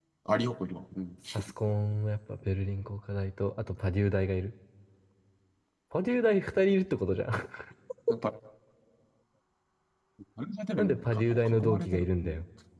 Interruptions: present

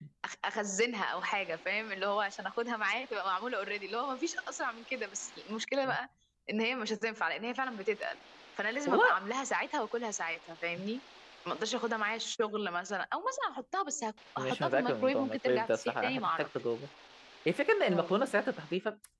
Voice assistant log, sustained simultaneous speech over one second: present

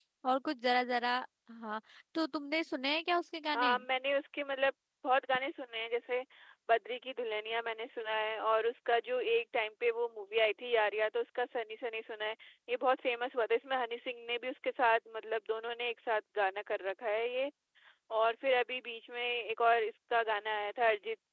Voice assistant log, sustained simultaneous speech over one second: none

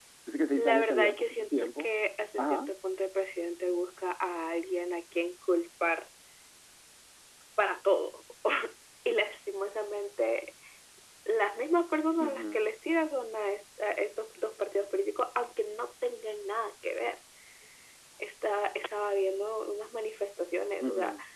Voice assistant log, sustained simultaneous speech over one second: present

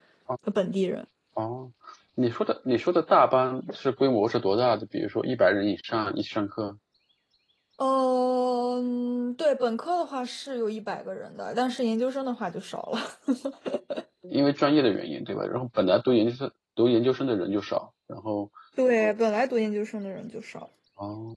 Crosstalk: none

